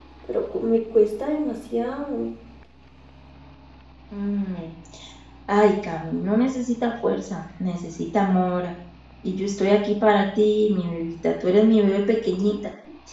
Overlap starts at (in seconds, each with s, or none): none